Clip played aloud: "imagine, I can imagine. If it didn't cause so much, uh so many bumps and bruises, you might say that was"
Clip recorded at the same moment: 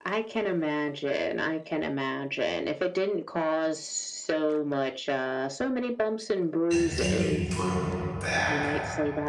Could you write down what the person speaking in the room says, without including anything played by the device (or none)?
and then you put them back?